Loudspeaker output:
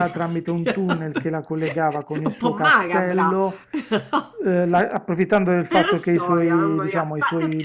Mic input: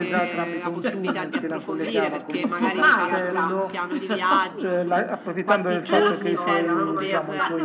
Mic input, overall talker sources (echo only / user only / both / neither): both